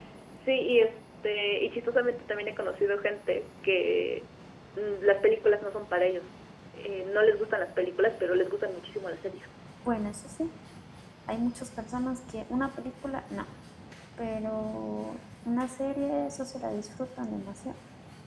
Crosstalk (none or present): none